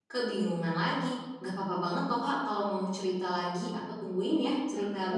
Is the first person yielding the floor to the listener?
Yes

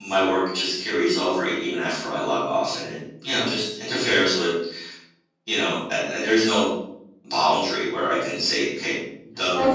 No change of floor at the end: No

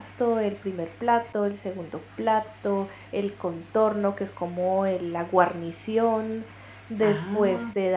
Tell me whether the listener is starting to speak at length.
No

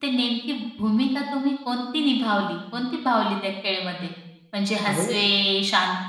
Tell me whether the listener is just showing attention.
Yes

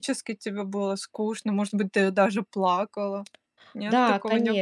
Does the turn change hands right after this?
Yes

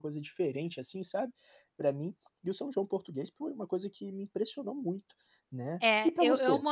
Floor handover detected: Yes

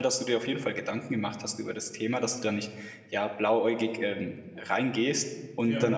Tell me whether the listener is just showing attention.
Yes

